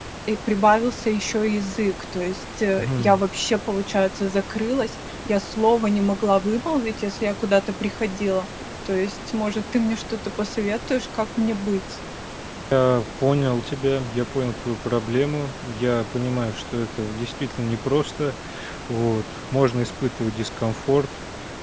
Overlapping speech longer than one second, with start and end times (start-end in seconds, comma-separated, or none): none